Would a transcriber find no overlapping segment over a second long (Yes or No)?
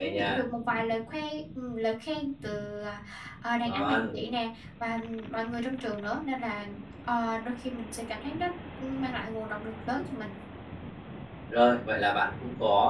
Yes